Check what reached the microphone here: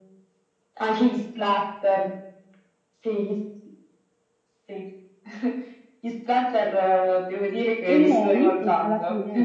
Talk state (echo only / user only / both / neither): both